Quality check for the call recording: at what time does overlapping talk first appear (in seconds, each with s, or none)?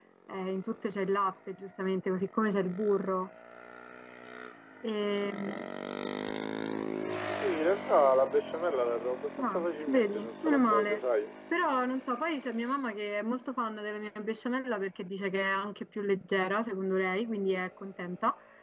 9.4 s